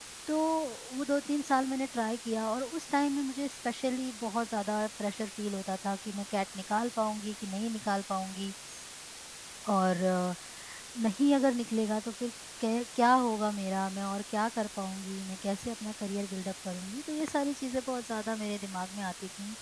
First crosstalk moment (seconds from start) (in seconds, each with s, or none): none